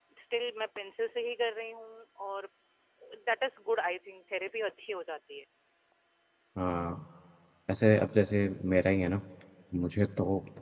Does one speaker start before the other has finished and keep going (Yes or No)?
No